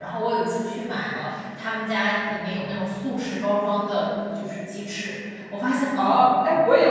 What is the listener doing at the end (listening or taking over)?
taking over